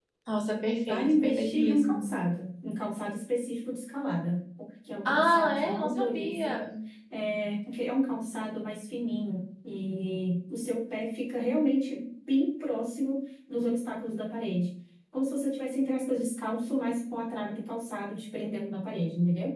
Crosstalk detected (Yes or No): Yes